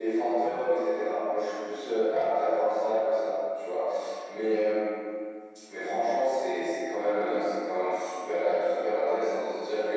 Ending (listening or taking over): listening